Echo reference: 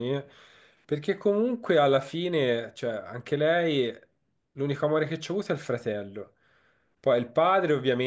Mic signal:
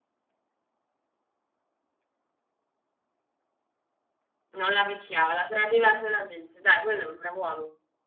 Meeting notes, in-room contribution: present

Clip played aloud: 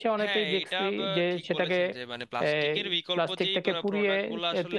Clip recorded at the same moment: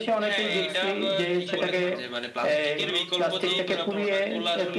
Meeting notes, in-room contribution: present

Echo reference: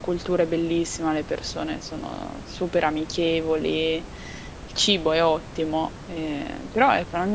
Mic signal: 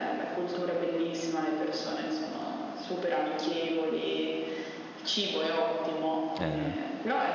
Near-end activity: present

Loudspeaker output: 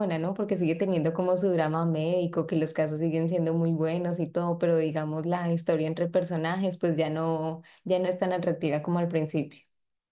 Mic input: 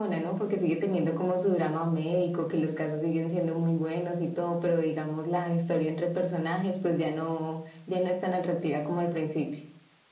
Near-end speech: none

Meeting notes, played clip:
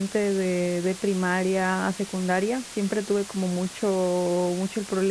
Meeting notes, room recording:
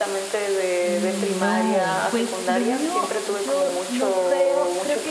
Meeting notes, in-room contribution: present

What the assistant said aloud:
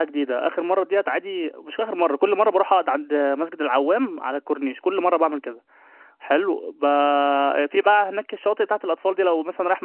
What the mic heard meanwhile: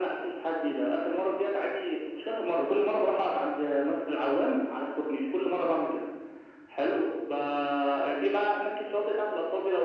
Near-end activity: none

